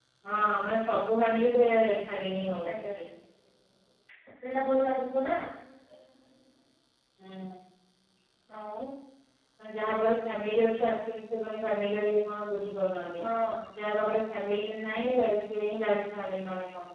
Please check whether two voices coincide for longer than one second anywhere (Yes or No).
No